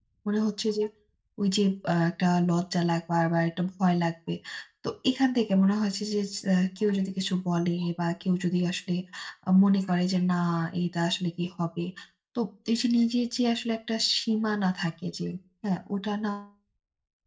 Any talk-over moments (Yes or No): No